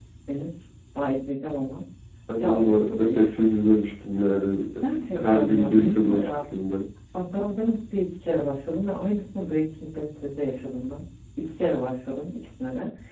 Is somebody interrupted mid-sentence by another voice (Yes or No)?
Yes